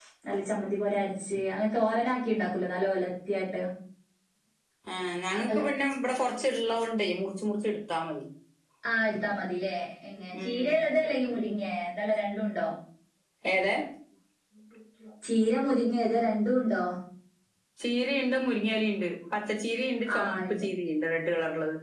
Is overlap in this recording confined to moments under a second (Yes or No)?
Yes